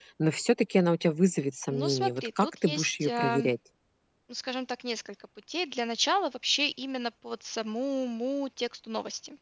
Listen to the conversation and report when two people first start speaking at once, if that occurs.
1.7 s

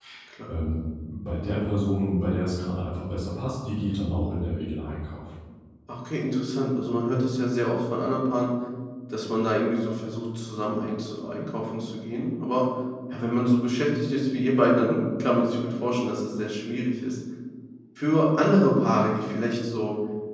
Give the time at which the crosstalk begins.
none

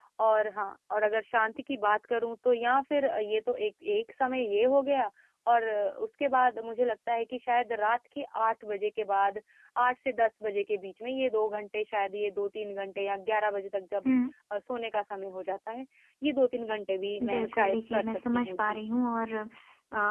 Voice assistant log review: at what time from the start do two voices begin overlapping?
17.2 s

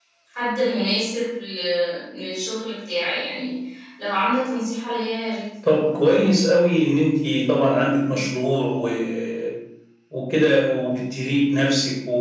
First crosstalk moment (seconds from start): none

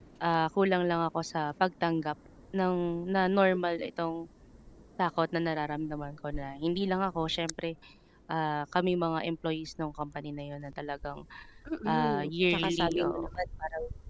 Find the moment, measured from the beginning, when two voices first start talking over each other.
11.8 s

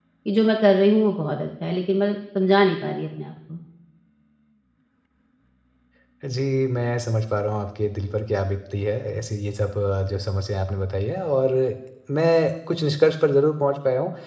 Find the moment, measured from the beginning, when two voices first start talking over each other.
none

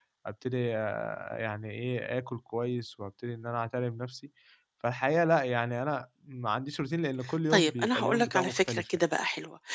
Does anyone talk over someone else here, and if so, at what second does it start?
7.5 s

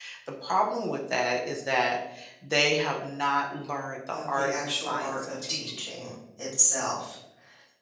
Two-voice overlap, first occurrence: 4.1 s

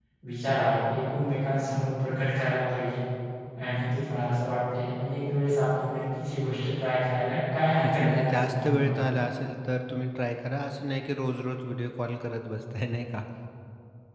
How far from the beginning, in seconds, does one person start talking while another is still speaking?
7.8 s

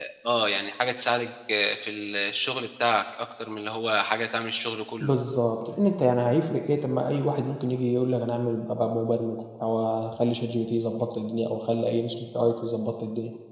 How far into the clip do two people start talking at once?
none

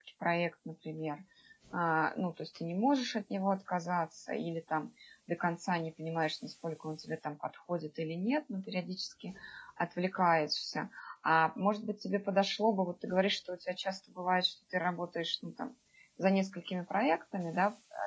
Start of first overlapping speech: none

